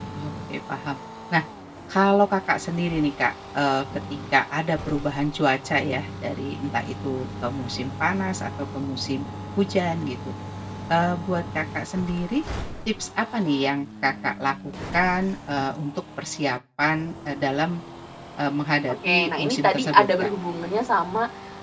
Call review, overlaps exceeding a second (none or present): present